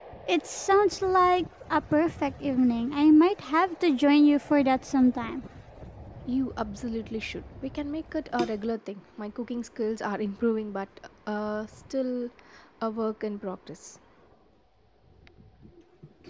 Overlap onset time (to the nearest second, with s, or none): none